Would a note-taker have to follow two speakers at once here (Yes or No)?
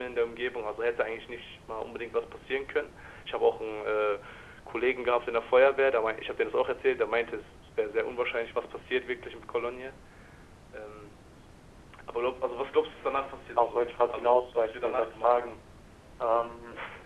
Yes